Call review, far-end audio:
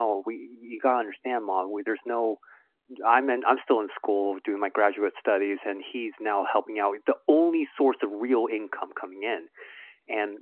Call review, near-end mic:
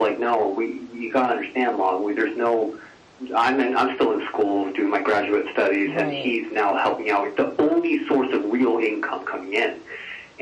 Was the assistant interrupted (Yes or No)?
Yes